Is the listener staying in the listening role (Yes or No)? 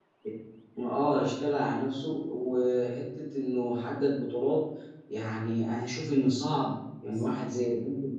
Yes